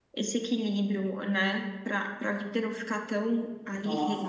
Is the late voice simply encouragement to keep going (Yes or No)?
No